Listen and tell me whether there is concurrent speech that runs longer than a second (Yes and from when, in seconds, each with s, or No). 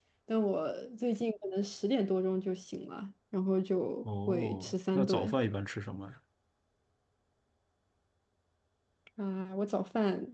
Yes, from 4.0 s